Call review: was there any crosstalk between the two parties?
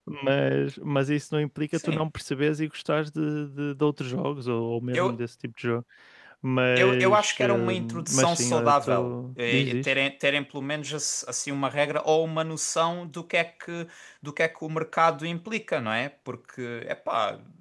Yes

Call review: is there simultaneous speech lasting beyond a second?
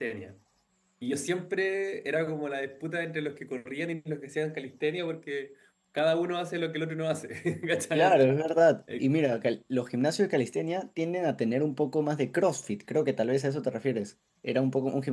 No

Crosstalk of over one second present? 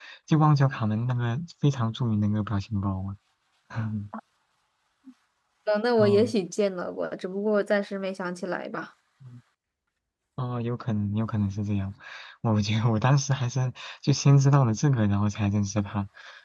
No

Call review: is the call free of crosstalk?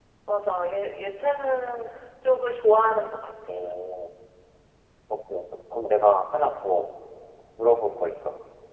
Yes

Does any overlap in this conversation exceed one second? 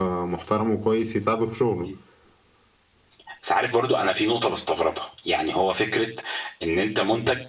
No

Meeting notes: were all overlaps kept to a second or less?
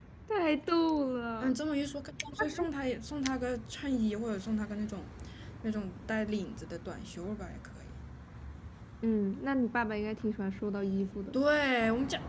Yes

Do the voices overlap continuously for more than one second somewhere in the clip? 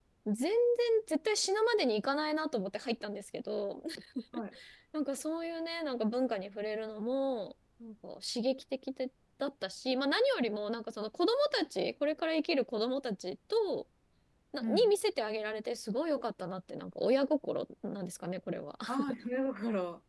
No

